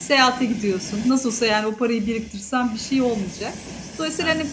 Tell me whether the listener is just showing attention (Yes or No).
Yes